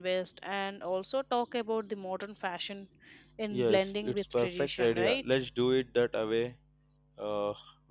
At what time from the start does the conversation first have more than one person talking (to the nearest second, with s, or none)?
4 s